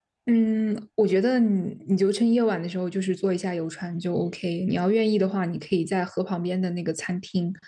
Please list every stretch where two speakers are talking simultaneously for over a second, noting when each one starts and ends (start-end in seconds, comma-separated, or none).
none